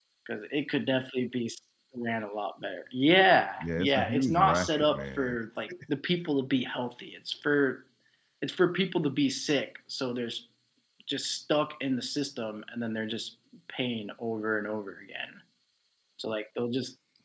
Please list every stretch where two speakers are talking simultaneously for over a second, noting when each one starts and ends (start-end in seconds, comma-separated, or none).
3.6-5.3